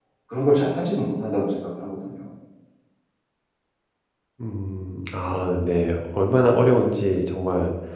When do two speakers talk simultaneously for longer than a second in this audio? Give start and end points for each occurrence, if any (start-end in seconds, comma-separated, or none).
none